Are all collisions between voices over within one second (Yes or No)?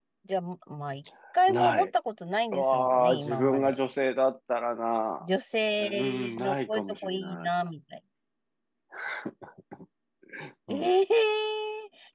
No